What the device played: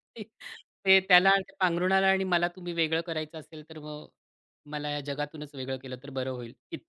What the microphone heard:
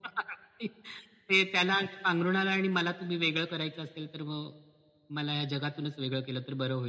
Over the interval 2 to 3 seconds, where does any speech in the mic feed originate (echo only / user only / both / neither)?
echo only